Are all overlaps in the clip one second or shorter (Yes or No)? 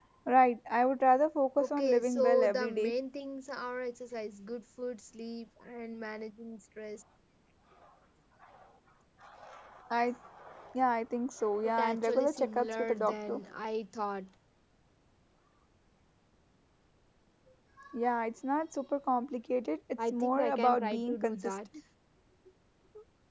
No